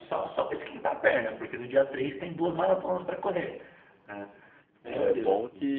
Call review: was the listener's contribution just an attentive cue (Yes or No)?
No